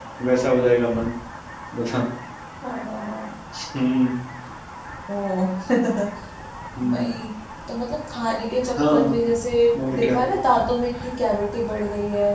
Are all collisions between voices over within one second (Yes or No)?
Yes